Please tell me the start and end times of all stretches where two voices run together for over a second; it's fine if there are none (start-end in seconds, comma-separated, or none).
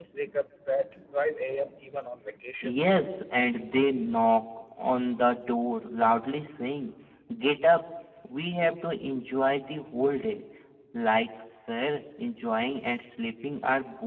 none